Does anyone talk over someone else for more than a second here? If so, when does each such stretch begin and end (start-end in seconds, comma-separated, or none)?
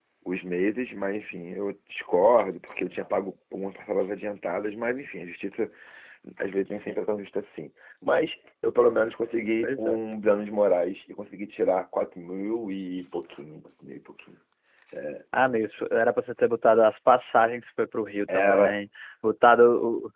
none